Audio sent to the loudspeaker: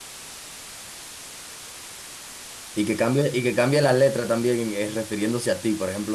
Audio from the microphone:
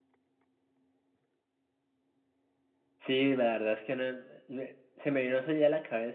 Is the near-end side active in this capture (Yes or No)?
Yes